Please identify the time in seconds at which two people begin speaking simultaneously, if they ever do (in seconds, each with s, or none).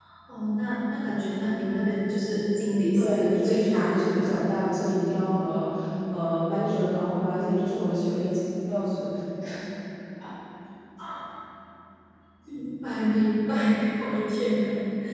3.0 s